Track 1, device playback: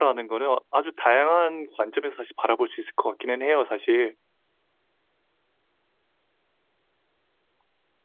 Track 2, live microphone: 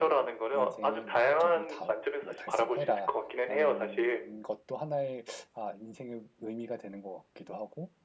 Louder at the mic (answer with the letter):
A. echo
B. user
A